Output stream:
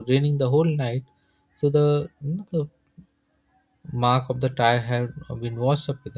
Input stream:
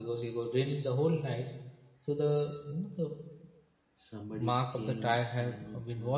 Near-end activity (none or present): present